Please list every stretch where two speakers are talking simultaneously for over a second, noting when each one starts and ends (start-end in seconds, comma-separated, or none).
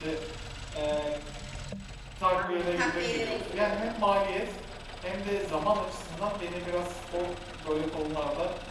2.4-4.0